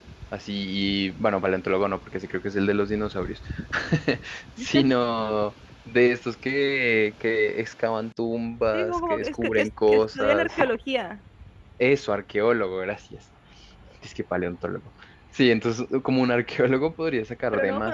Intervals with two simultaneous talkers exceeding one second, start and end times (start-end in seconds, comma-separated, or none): 8.7-10.5